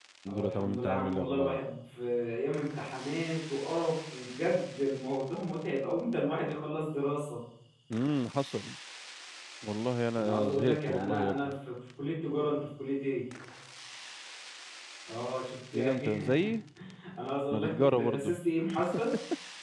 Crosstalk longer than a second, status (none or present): present